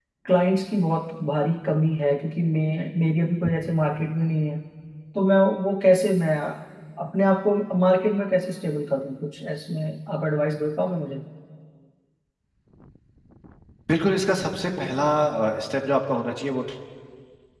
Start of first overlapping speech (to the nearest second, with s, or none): none